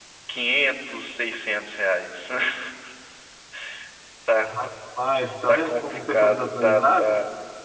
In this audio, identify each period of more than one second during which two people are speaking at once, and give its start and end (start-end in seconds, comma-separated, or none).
5.5-7.1